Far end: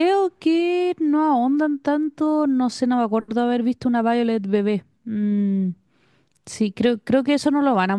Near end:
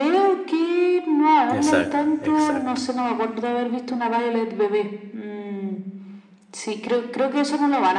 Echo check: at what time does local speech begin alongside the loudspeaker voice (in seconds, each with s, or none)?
1.5 s